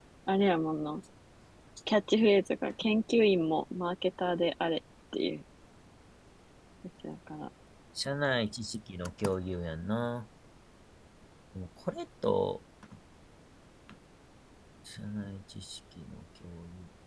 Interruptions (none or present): none